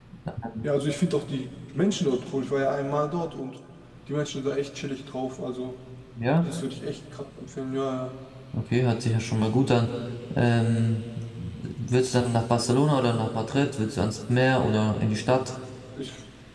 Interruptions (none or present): none